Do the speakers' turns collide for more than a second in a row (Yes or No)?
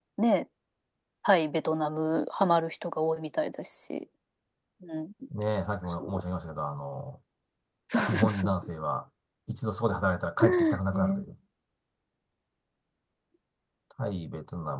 No